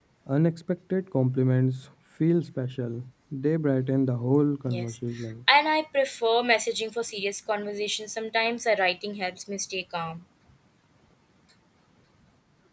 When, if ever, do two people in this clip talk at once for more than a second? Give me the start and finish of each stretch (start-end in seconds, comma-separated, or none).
none